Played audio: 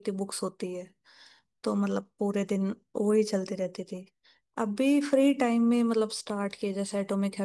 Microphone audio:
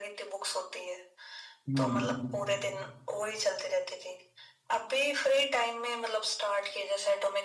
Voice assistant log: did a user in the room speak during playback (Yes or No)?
Yes